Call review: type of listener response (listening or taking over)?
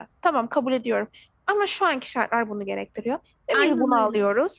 listening